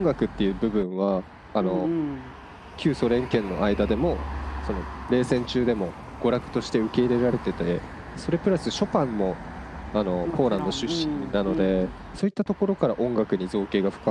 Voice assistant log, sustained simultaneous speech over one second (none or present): present